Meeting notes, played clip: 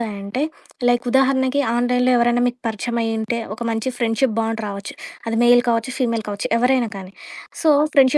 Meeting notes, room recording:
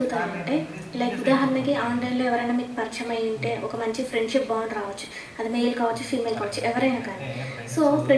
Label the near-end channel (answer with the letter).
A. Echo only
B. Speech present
B